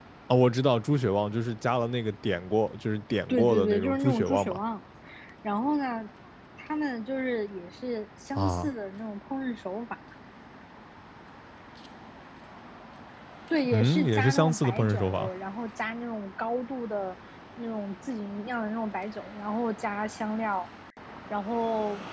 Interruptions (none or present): present